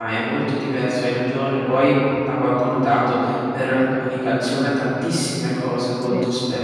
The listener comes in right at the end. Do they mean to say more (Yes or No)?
No